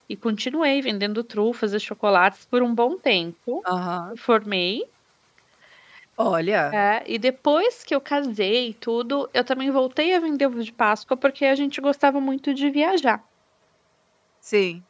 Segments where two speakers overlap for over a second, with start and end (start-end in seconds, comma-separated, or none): none